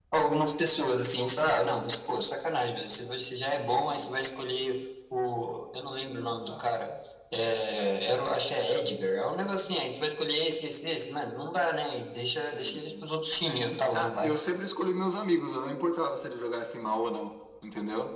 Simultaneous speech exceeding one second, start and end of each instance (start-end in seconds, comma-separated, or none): none